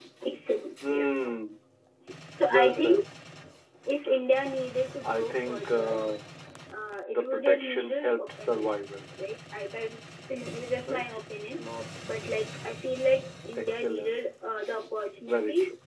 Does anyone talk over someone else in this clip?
Yes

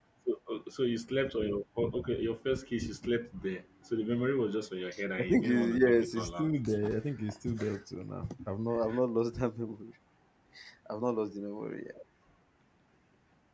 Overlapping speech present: Yes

